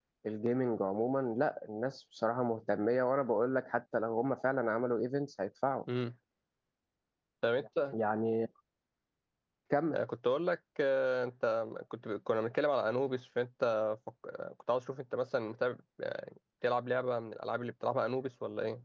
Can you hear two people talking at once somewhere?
No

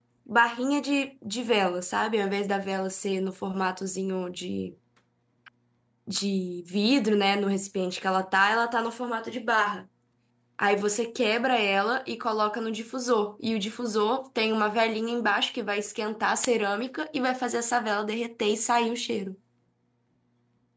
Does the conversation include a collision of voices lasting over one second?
No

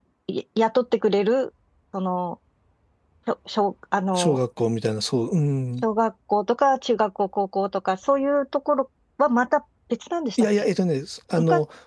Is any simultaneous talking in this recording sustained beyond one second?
No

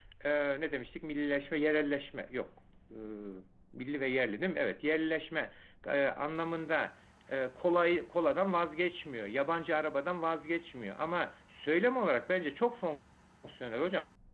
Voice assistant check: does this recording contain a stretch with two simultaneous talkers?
No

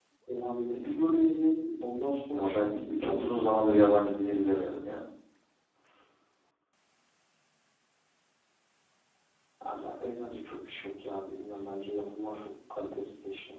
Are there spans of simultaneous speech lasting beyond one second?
Yes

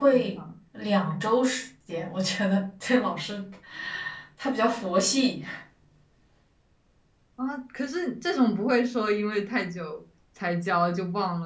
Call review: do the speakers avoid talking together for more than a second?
Yes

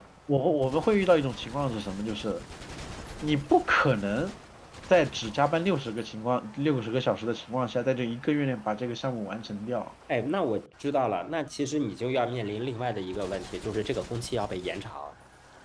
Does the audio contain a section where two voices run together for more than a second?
No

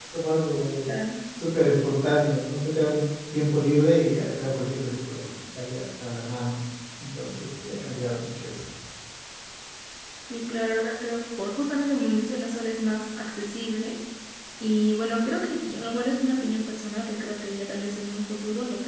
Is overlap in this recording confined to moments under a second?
Yes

